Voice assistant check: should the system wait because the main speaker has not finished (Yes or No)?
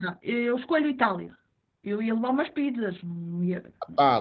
No